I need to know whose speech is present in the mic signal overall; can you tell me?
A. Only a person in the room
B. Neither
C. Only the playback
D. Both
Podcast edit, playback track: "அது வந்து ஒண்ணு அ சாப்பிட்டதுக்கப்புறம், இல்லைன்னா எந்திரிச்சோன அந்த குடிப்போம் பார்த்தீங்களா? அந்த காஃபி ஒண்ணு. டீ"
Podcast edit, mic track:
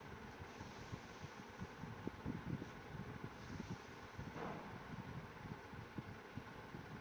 B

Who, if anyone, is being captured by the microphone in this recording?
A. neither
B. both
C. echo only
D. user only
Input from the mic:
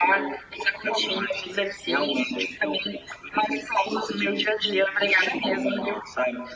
C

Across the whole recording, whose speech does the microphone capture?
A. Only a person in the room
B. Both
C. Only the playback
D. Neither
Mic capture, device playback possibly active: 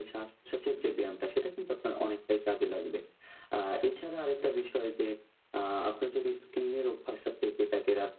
C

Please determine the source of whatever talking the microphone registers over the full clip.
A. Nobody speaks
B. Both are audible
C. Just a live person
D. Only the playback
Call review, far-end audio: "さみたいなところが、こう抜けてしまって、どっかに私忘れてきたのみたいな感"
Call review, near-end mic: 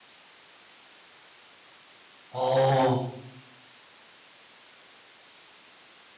C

